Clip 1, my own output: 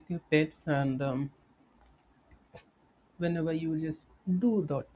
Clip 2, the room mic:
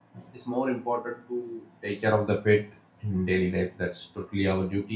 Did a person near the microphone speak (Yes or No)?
Yes